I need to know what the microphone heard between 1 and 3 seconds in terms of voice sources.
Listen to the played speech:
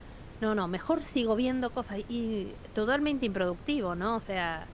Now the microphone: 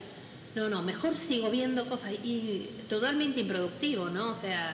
echo only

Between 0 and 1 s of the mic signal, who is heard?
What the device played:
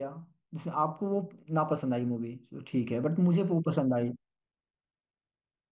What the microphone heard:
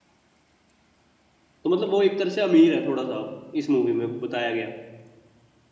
neither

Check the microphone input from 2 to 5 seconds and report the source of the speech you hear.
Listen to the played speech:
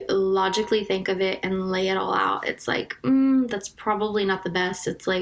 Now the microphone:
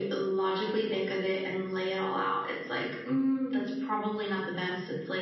echo only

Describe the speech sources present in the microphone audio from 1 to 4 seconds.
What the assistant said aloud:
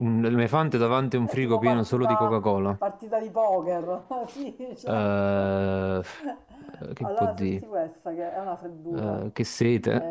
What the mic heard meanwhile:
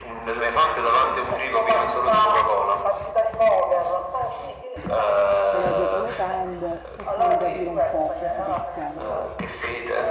echo only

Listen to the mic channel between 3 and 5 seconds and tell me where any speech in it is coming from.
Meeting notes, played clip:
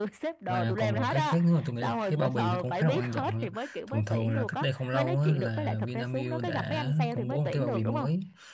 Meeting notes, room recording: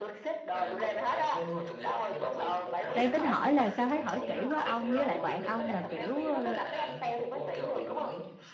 both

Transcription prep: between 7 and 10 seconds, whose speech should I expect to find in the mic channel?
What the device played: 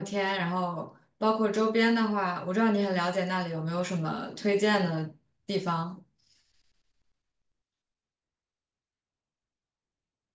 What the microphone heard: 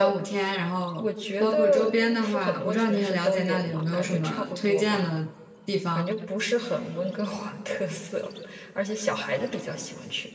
user only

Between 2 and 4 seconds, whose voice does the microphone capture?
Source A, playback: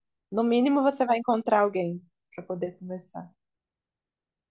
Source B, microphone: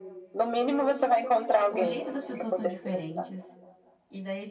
both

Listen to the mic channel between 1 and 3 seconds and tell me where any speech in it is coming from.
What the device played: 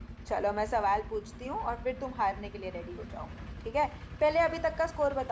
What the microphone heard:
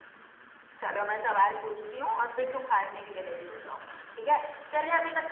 echo only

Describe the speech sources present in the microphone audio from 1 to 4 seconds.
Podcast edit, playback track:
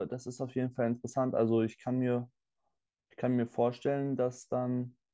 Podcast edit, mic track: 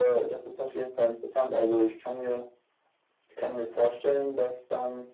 echo only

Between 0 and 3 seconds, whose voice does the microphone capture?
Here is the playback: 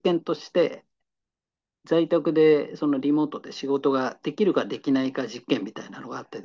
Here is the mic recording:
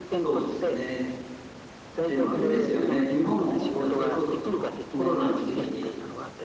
both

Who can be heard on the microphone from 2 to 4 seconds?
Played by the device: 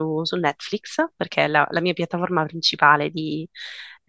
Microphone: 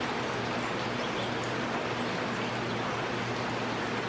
neither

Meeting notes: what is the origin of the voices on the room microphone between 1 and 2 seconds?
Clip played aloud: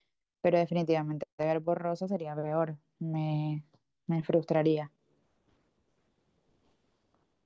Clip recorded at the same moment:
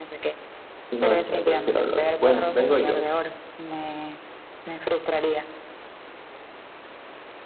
both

